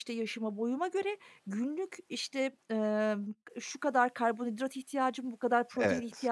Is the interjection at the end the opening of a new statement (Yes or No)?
No